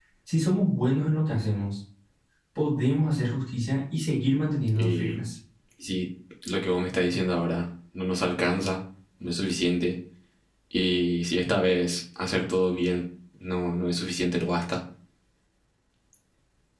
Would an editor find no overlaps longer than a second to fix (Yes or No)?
Yes